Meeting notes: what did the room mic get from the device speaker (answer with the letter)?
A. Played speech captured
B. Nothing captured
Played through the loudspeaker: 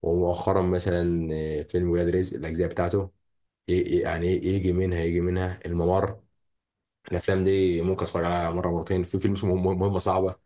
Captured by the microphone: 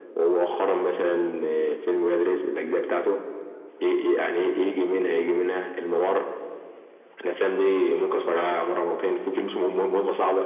A